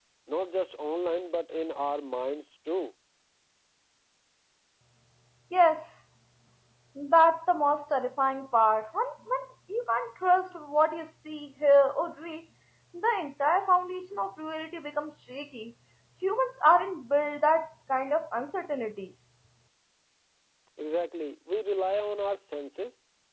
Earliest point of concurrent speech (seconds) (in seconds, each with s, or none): none